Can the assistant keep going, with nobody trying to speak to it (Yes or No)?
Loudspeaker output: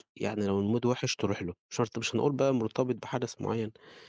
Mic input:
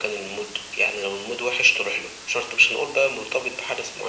Yes